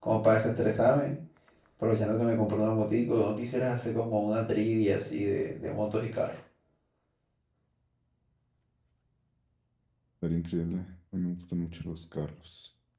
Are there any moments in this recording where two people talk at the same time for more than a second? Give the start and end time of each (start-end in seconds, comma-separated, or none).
none